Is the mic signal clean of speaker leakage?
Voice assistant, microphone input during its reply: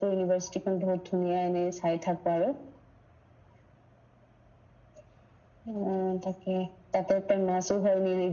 No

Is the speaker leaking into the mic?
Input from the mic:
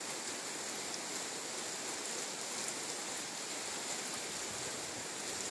No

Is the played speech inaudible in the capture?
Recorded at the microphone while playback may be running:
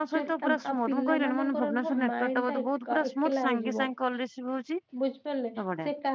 No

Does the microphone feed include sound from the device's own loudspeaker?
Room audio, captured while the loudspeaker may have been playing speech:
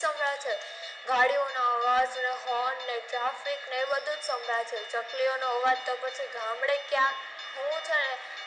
Yes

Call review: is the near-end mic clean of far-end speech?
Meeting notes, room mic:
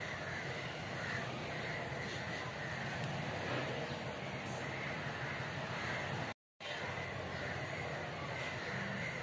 Yes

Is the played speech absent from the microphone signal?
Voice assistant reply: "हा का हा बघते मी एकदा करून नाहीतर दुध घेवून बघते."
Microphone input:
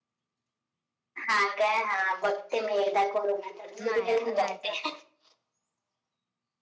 No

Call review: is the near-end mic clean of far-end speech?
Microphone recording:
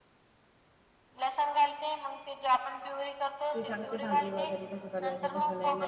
No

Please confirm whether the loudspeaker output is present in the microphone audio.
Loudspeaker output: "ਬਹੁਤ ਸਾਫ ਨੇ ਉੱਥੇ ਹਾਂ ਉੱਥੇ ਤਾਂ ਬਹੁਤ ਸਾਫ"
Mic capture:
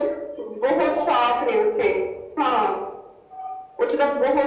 Yes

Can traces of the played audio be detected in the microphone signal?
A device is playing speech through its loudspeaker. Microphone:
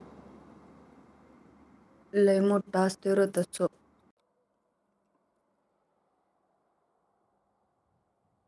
No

